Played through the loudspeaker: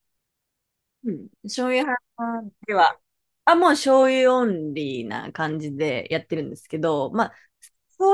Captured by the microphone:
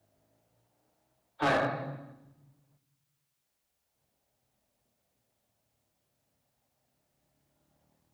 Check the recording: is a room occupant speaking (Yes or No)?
Yes